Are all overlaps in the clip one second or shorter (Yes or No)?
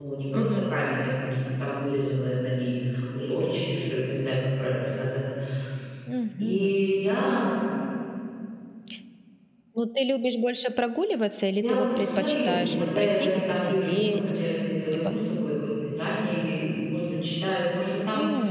No